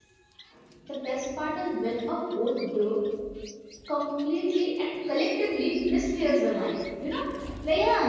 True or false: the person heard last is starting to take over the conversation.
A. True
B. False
B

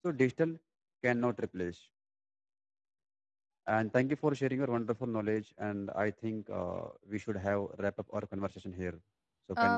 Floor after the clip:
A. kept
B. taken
B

